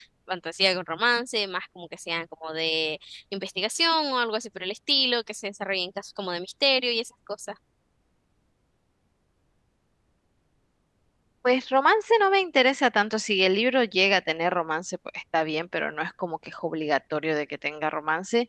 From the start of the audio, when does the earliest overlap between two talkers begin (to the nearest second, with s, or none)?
none